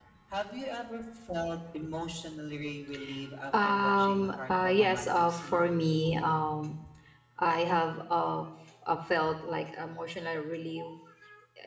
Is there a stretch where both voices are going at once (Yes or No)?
Yes